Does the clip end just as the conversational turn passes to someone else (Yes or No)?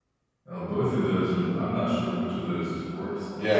Yes